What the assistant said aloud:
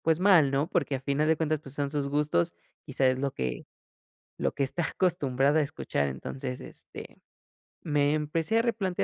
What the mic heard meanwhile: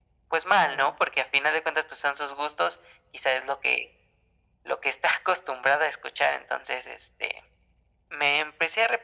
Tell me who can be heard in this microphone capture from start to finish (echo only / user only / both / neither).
both